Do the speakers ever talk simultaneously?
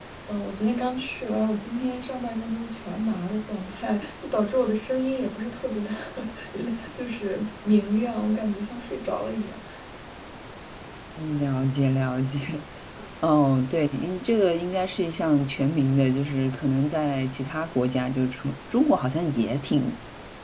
No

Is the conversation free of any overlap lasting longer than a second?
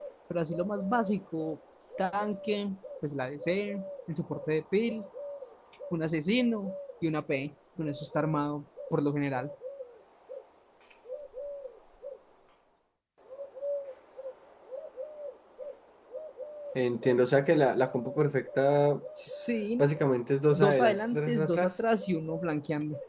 No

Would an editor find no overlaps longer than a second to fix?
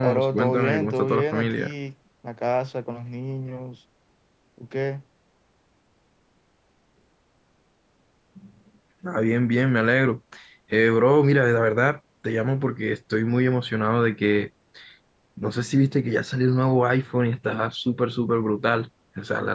No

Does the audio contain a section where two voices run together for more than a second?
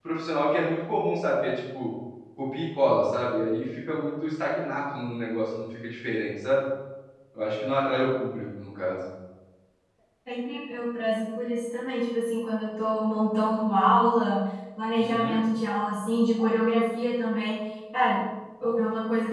No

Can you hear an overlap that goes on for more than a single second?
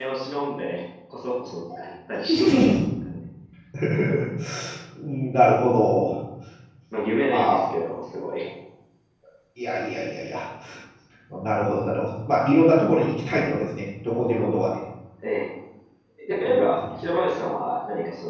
No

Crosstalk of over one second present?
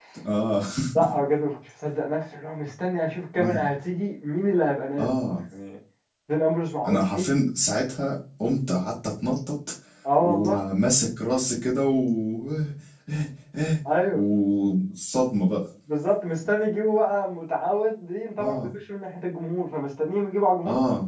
No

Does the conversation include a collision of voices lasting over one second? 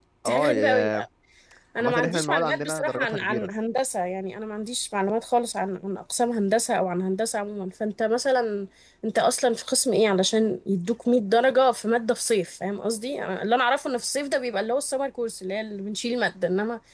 Yes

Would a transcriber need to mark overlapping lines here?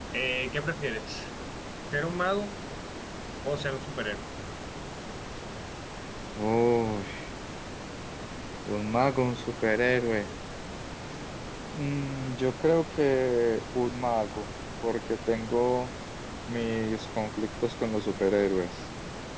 No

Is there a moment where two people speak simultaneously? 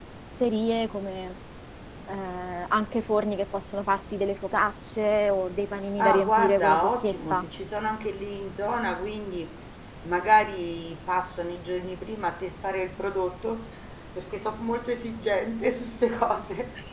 Yes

